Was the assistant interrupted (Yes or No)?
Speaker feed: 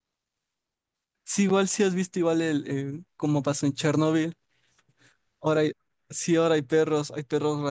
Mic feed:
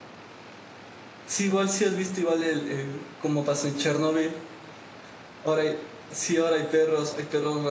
No